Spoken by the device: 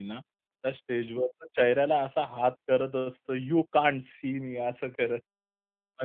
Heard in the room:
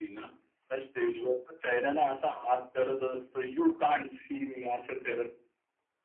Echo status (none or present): present